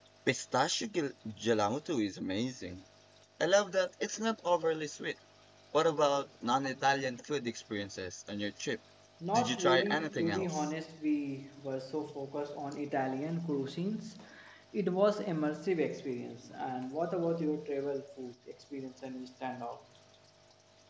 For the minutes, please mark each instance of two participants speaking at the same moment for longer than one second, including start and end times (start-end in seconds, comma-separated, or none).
9.3-10.7